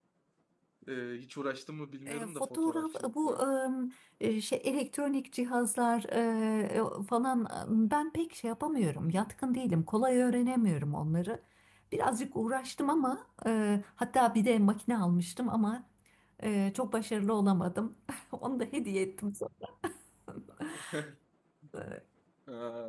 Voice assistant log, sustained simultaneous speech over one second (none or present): present